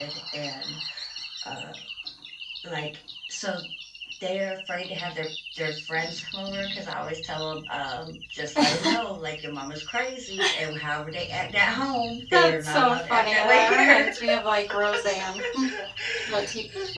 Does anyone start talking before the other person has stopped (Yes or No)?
Yes